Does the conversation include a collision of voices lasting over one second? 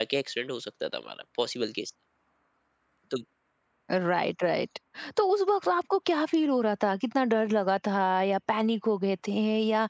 No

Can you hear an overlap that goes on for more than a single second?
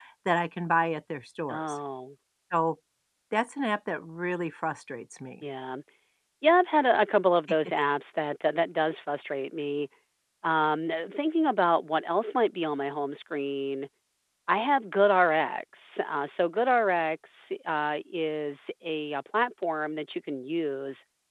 No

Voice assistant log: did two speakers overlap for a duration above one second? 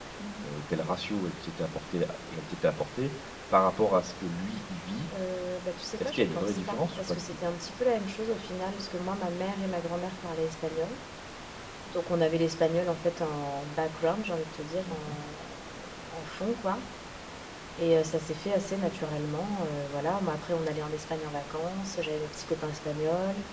Yes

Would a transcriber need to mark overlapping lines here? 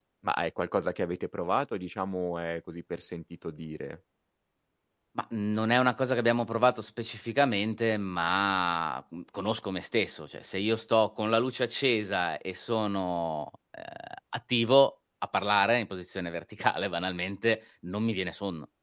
No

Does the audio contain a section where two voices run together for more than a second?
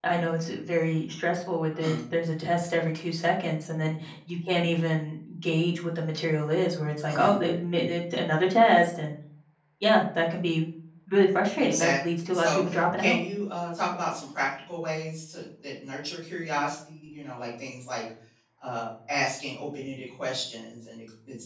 Yes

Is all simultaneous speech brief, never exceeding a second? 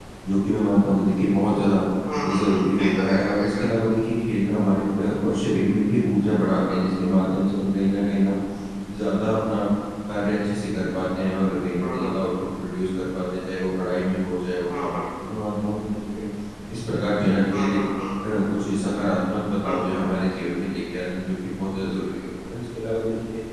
No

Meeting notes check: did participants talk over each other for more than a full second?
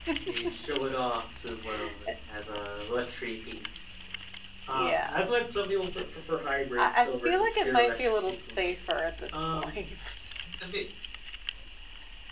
Yes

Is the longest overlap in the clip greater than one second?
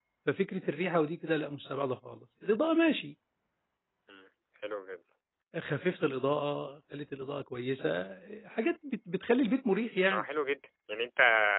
No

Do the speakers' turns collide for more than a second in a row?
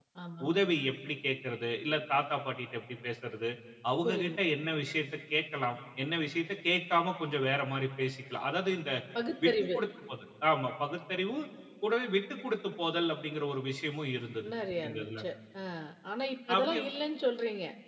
No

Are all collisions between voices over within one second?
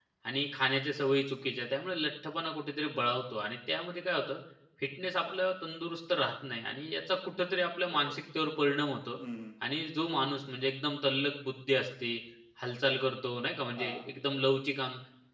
Yes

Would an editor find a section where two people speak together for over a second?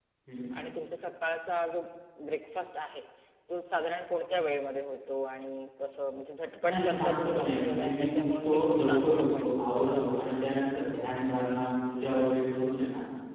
Yes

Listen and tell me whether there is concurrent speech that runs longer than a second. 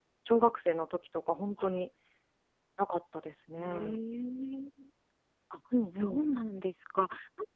No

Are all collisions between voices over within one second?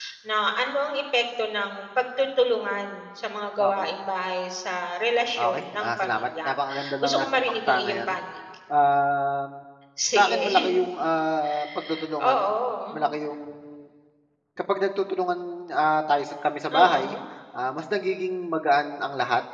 No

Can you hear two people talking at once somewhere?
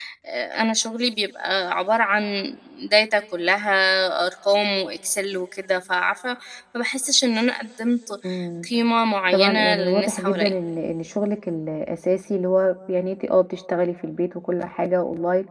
Yes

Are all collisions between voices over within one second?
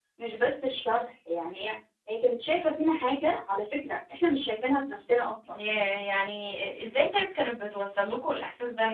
Yes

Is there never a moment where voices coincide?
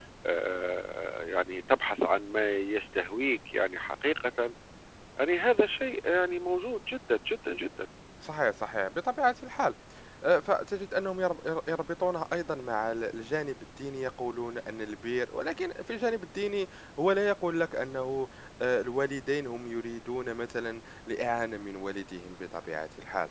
Yes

